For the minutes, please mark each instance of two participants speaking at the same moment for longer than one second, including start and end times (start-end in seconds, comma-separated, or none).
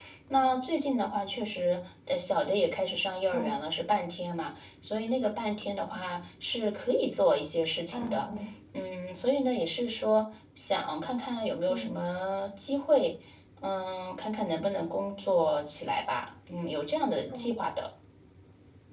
none